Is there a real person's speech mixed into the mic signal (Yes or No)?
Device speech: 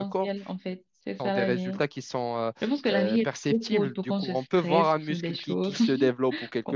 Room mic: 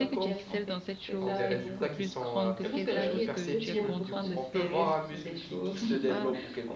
Yes